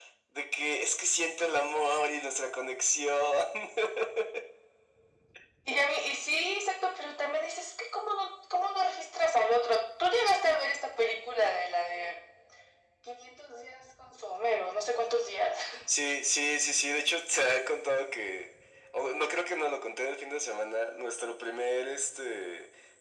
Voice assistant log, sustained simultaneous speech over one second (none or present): none